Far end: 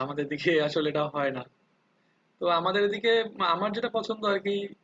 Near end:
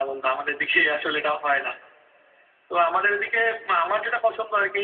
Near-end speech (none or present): none